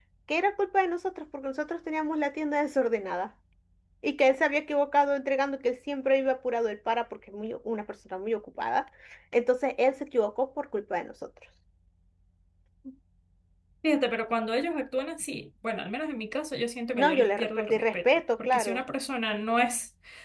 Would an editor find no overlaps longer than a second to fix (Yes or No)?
No